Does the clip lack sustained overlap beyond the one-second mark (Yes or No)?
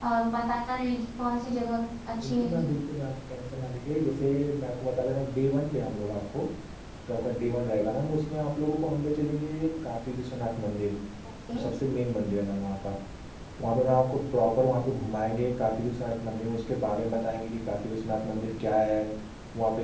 Yes